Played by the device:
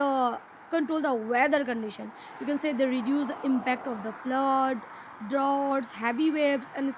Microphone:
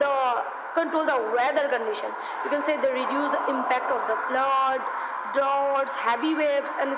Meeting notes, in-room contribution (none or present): none